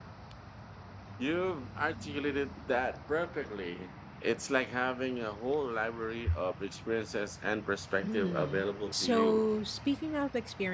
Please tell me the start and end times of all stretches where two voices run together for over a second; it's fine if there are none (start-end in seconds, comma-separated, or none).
8.0-9.4